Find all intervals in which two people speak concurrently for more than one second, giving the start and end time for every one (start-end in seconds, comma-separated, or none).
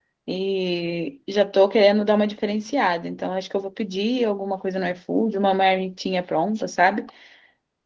none